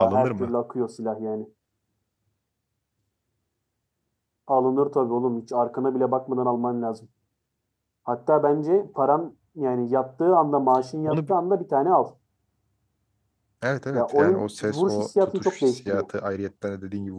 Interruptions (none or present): present